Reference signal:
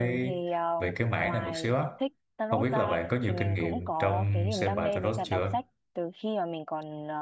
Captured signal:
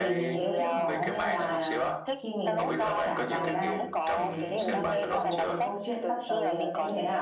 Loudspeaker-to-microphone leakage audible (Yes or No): Yes